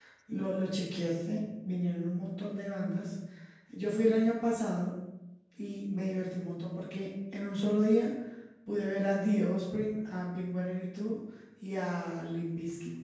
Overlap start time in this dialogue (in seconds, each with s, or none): none